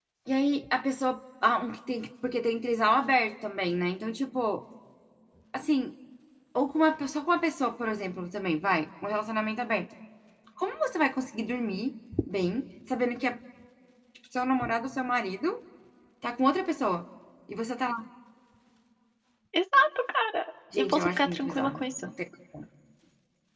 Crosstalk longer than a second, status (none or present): present